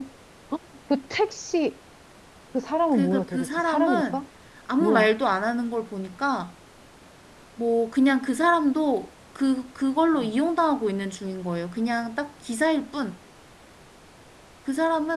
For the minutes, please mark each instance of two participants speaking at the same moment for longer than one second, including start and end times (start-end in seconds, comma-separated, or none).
2.9-4.2